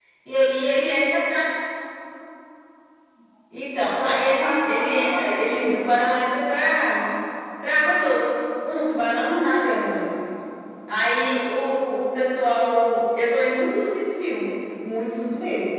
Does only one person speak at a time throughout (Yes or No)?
No